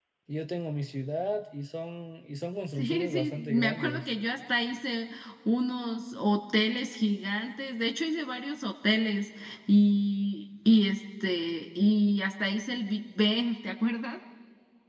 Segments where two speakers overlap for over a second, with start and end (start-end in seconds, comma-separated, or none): 2.8-4.0